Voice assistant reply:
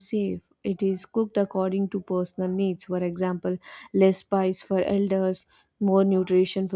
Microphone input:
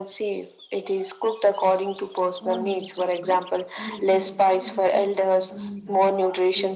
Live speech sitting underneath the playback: Yes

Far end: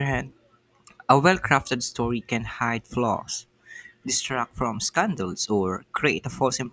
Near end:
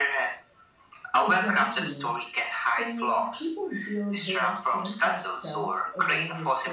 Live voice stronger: No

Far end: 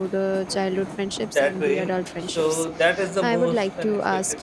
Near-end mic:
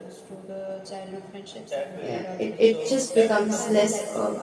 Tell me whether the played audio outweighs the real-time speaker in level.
No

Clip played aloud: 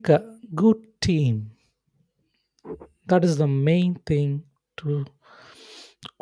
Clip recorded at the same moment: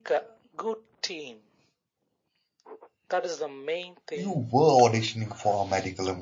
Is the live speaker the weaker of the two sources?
No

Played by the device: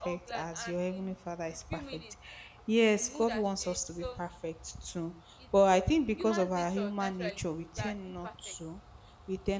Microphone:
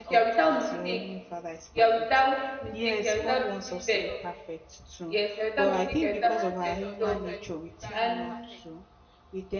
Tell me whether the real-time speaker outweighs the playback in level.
Yes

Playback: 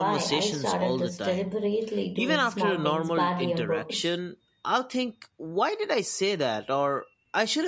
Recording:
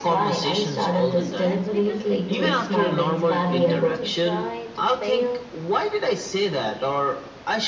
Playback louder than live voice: Yes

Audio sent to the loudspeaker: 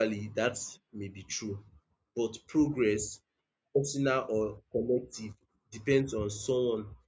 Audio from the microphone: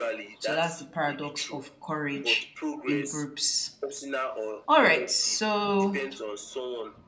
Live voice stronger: Yes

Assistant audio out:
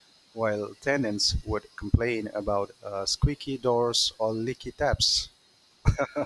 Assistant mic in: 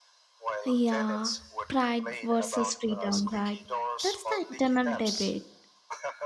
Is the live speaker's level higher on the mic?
Yes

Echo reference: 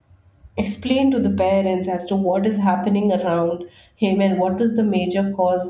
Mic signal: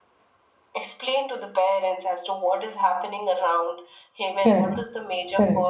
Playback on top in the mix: No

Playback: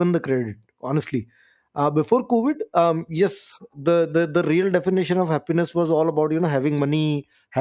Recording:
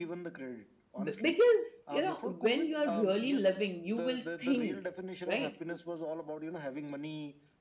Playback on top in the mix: No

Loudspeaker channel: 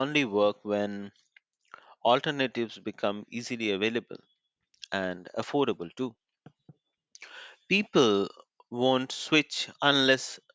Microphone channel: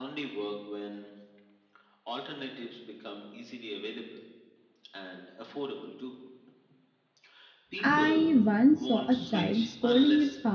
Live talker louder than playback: Yes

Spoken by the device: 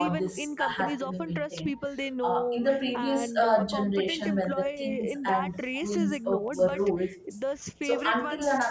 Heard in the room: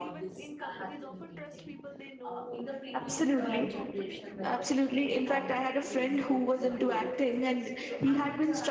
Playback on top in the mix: No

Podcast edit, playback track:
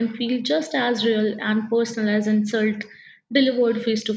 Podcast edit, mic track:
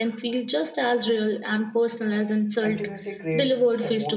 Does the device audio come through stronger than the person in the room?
Yes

